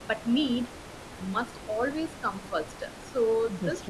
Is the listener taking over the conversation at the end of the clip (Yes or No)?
No